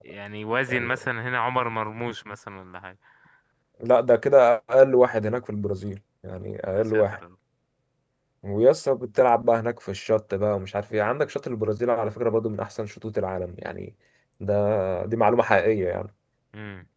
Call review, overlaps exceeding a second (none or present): none